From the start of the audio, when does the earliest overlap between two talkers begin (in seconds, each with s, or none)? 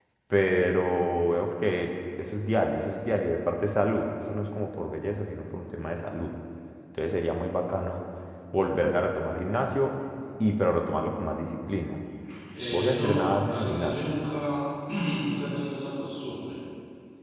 12.7 s